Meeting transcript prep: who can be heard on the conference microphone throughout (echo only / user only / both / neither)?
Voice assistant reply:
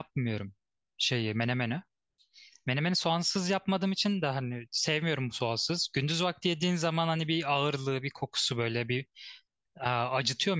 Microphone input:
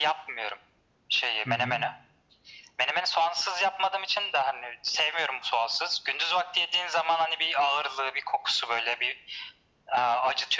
both